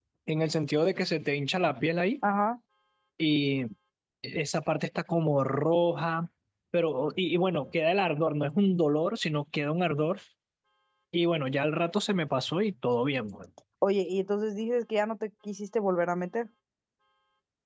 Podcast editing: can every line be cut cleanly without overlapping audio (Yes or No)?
Yes